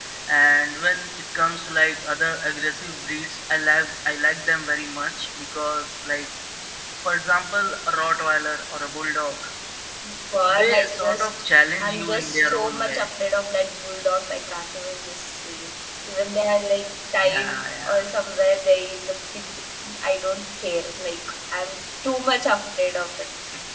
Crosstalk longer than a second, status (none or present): present